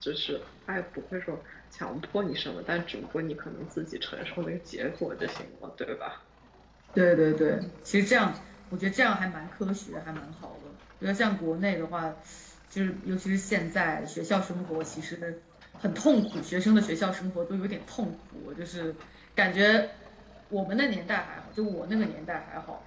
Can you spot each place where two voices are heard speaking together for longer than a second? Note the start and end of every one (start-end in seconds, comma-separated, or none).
none